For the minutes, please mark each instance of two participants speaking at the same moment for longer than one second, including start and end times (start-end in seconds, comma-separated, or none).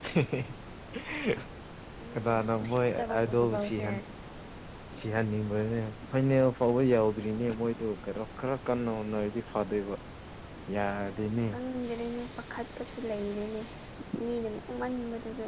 2.1-3.8